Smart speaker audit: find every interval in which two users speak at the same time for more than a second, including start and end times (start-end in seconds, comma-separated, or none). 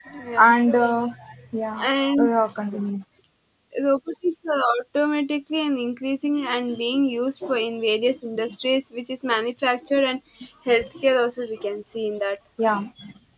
none